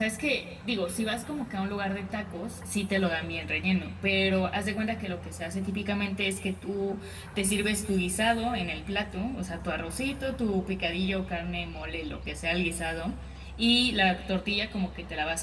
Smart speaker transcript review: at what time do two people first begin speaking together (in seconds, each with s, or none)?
none